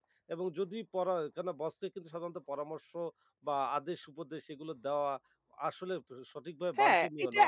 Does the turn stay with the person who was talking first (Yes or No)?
No